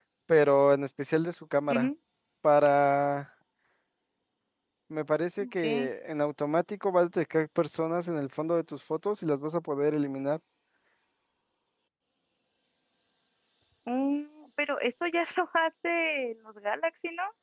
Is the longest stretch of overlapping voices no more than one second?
Yes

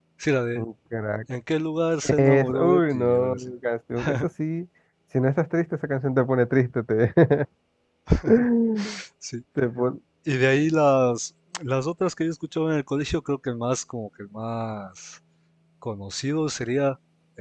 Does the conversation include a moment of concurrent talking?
Yes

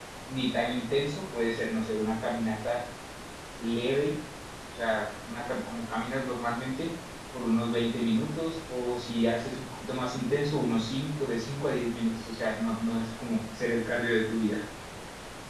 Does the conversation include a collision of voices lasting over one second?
No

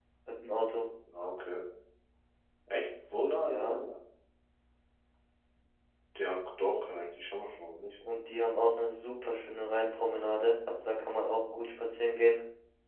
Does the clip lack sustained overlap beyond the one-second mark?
Yes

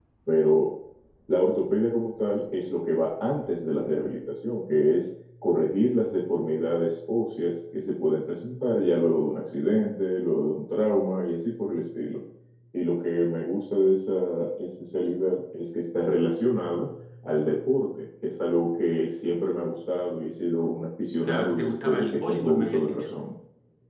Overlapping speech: Yes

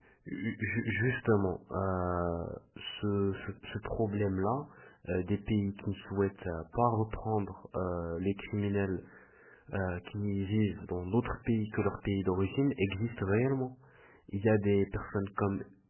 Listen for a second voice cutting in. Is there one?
No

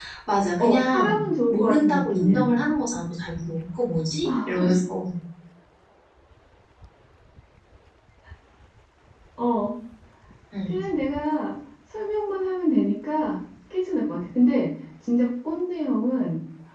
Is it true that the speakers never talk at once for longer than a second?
No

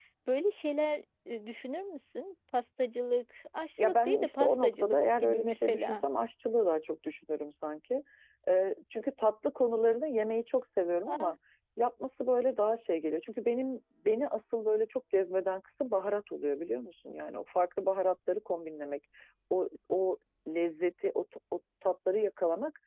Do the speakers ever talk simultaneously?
Yes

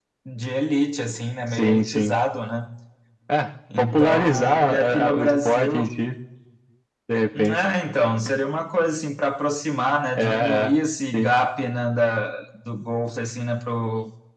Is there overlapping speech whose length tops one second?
Yes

